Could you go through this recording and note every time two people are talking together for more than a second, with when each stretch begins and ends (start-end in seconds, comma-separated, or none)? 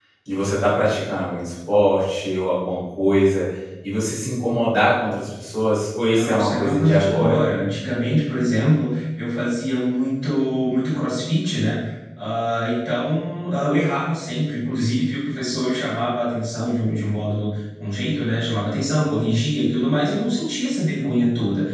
6.1-7.4